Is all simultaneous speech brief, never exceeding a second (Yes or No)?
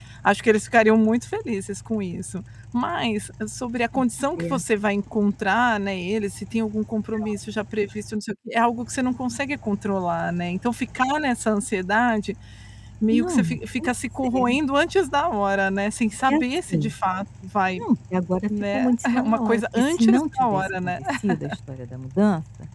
No